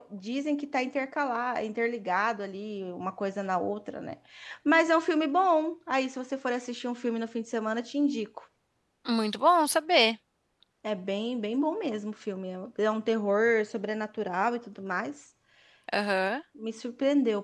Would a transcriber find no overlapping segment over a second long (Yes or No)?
Yes